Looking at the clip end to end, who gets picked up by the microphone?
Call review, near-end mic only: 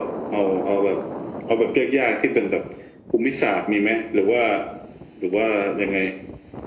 echo only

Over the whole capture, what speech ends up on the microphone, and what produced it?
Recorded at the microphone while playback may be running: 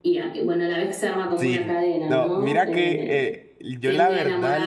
both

